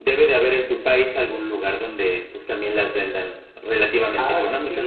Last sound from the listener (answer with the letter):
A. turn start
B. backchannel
A